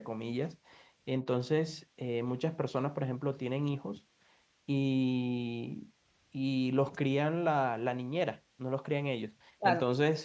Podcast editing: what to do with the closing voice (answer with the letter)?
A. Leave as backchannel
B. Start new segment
A